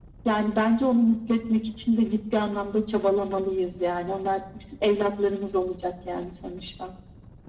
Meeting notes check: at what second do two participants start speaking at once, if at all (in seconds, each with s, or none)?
none